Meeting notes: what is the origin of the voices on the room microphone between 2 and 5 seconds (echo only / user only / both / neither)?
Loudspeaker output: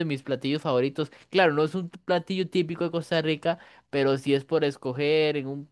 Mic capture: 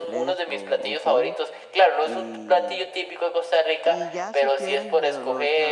both